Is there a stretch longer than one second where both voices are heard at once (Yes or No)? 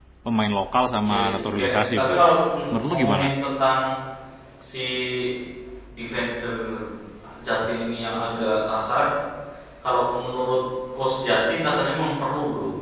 Yes